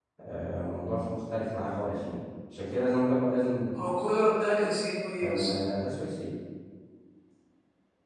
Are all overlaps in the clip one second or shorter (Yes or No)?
Yes